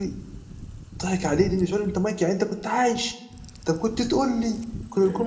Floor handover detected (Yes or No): No